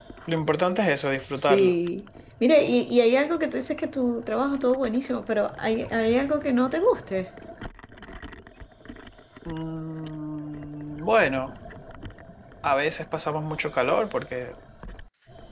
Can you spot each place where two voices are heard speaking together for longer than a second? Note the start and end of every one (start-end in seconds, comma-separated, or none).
none